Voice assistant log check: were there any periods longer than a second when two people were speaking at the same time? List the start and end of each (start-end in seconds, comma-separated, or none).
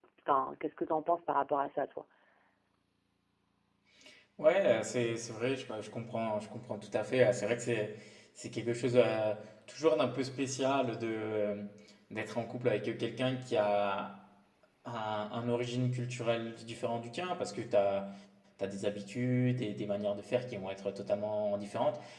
none